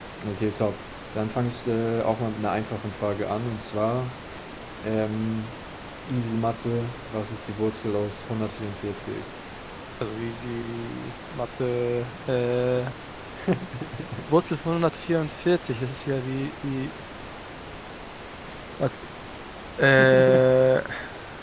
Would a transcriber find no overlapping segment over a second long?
Yes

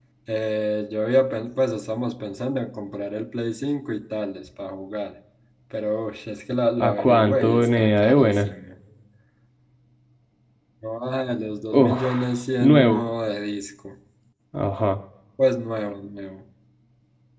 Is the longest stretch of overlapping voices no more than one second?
No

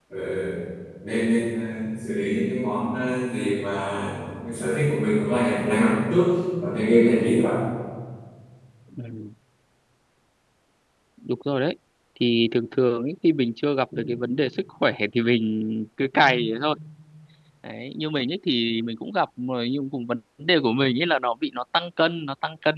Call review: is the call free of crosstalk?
Yes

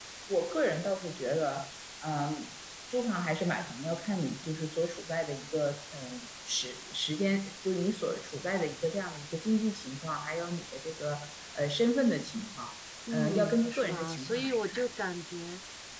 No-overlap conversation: No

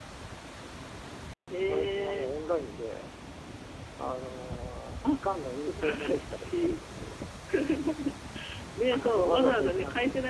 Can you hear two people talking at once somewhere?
Yes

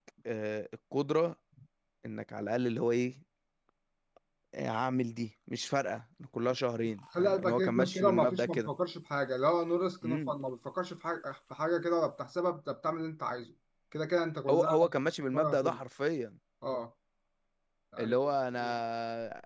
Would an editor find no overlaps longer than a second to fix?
No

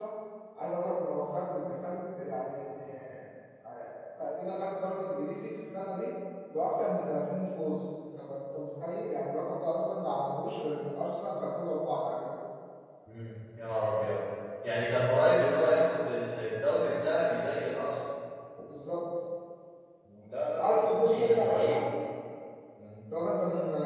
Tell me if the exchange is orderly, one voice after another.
No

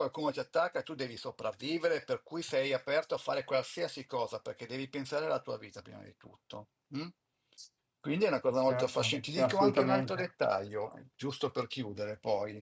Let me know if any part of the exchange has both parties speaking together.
Yes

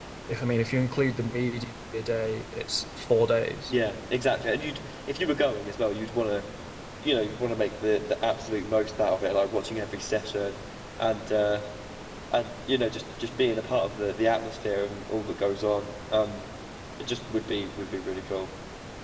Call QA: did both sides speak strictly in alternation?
Yes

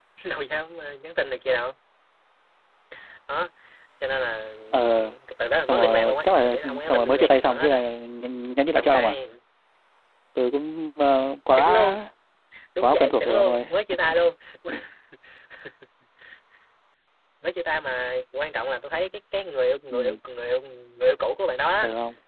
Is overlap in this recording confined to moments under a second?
No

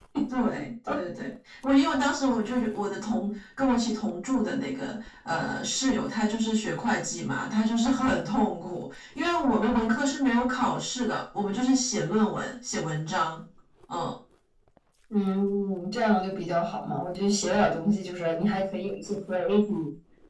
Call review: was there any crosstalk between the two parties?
No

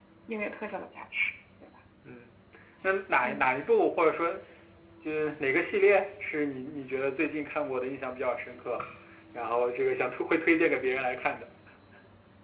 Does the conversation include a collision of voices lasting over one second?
No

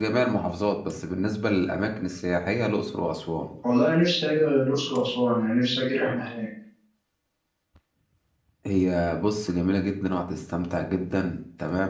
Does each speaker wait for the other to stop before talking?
Yes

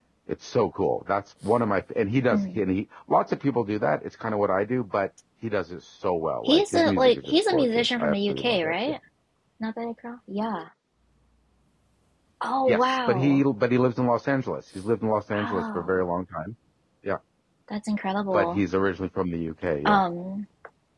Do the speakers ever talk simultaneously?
Yes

